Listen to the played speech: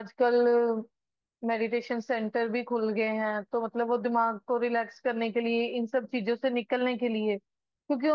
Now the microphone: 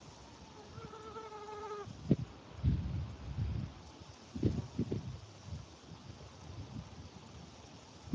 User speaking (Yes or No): No